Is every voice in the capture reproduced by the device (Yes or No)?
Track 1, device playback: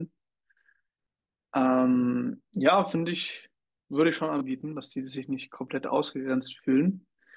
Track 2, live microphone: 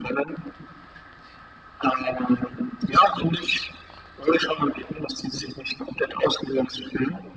Yes